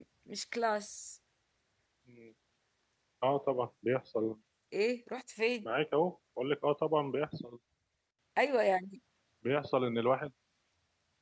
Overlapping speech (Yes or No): No